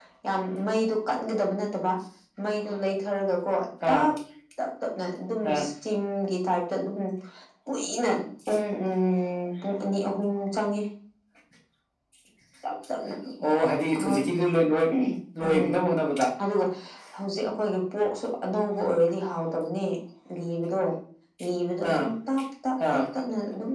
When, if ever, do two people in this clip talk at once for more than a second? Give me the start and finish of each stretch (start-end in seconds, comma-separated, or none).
none